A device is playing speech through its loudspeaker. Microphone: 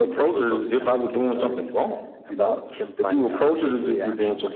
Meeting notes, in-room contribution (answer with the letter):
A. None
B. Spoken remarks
B